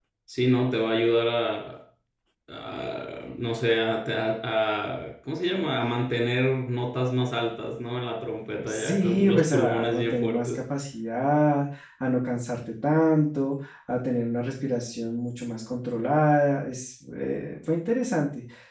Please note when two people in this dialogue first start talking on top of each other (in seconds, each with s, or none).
8.6 s